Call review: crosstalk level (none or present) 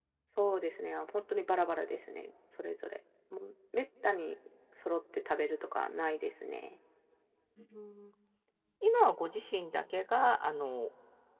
none